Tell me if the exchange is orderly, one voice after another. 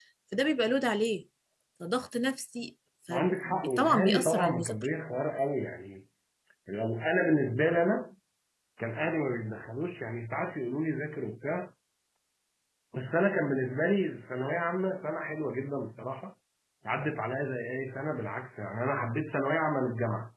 No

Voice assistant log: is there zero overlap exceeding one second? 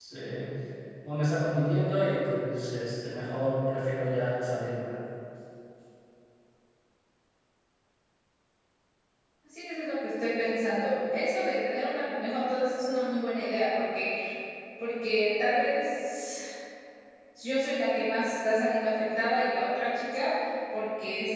Yes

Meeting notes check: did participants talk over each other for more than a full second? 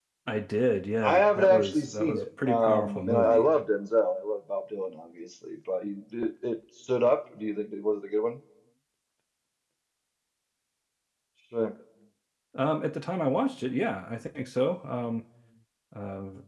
Yes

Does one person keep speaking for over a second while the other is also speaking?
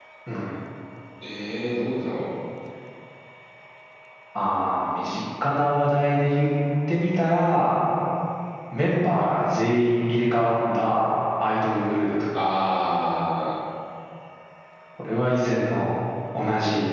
No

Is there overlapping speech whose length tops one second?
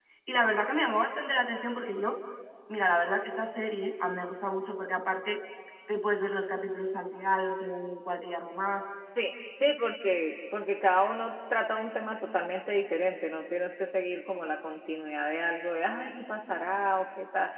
No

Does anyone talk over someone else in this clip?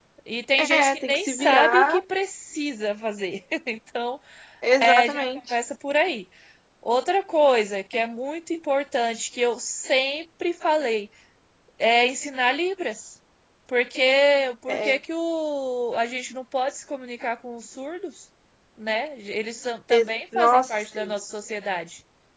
Yes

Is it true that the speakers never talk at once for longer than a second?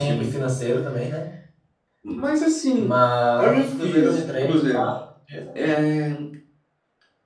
No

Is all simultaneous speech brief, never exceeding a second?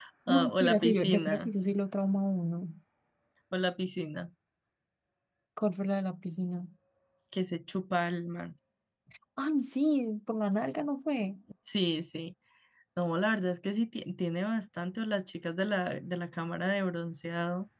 No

